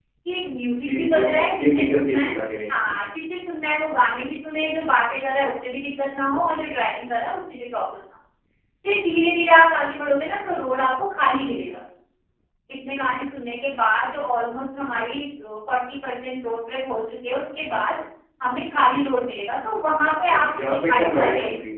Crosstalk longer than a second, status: present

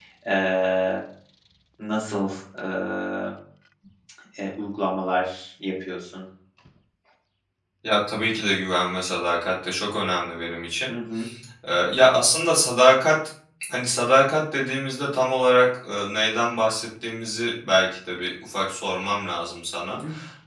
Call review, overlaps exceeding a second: none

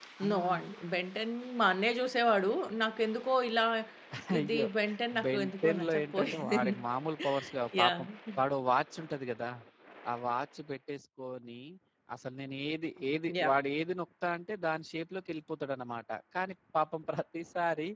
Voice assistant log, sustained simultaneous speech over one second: present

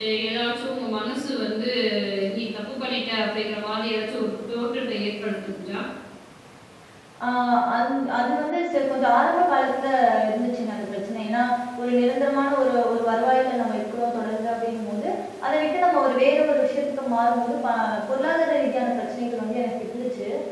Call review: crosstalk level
none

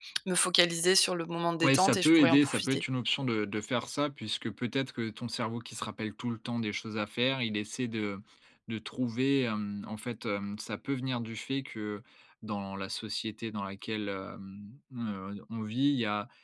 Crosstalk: present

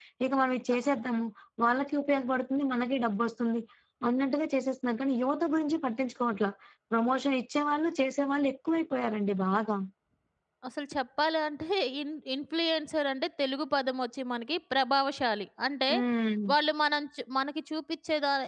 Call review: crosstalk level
none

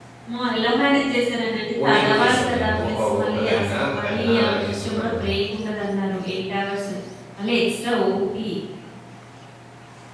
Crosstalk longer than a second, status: present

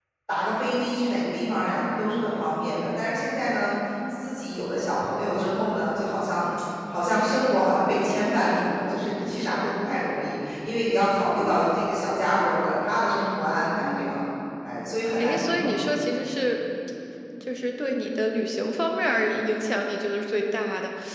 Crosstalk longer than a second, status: none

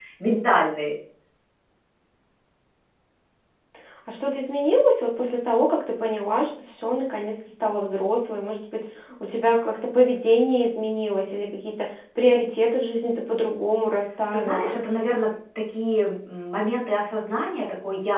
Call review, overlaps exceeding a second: none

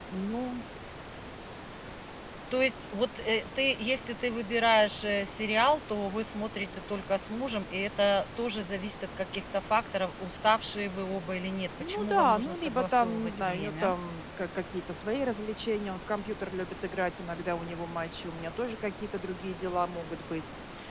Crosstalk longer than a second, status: present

